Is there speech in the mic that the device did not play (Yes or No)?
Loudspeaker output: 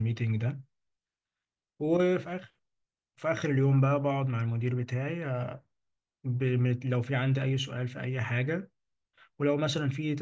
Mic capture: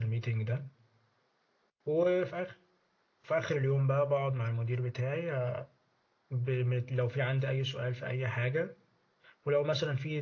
No